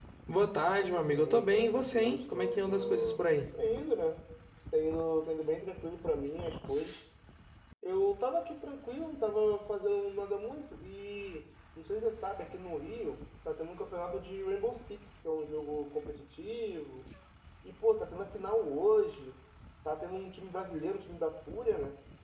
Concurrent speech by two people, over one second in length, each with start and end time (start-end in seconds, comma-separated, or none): 0.7-3.2